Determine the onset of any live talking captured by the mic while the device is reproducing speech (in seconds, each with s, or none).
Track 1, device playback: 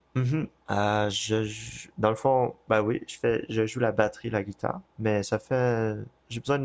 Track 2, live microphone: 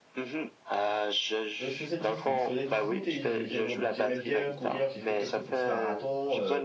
1.6 s